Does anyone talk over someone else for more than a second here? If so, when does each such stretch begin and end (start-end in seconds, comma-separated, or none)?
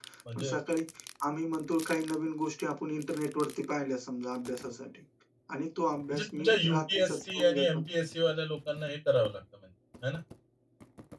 6.1-7.8